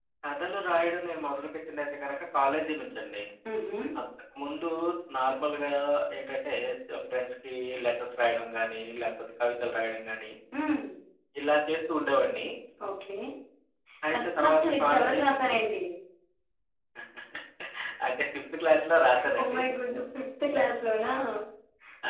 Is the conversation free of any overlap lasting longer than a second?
No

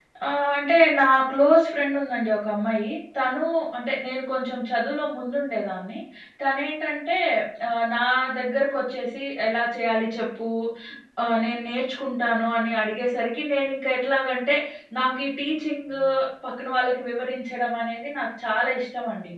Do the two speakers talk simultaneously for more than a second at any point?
No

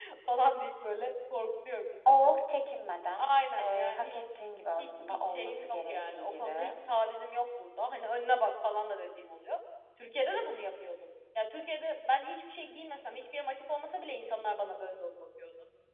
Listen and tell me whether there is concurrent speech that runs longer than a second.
Yes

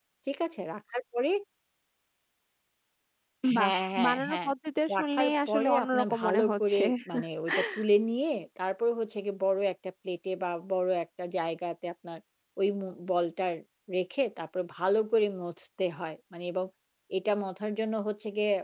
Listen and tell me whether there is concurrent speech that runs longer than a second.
Yes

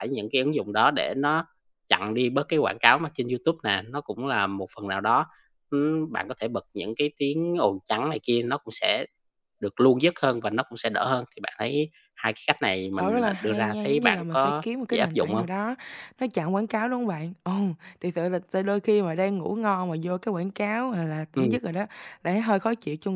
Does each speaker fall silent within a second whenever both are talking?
No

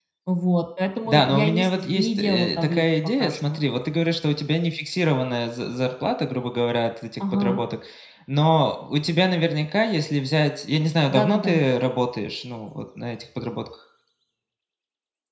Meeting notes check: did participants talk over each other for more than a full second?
Yes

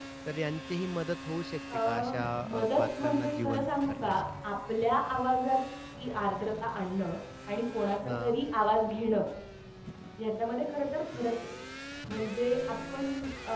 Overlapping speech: Yes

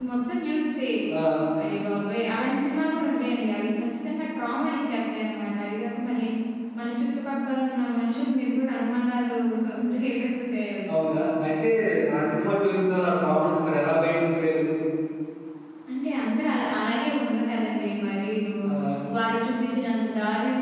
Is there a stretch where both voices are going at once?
No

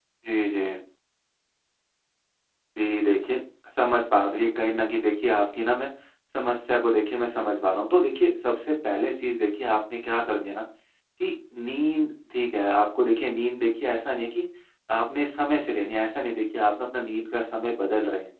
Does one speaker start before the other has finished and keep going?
No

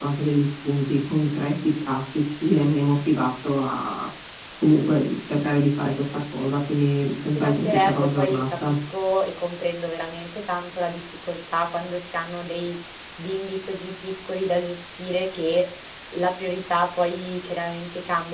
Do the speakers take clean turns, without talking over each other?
No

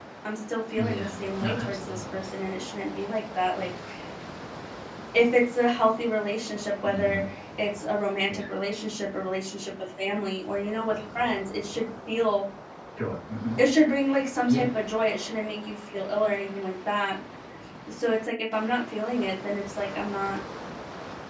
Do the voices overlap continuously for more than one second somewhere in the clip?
Yes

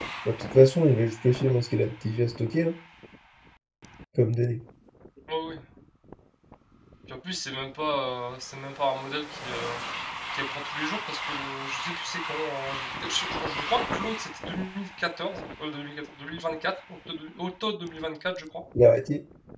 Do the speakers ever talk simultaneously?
No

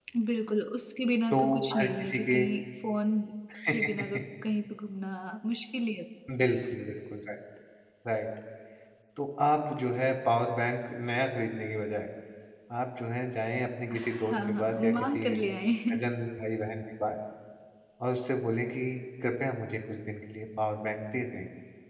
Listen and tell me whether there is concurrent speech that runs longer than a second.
Yes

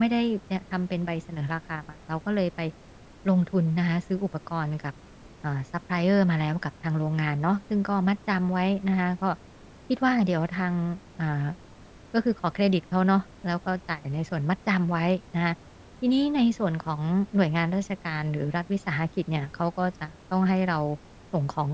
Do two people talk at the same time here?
No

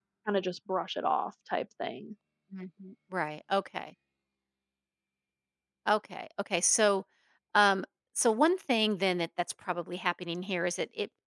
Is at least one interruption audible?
No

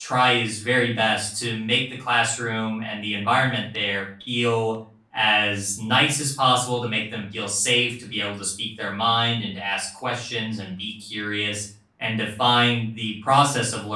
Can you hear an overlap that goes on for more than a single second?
No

